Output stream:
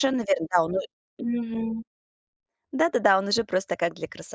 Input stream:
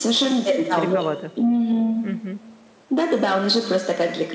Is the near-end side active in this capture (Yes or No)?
Yes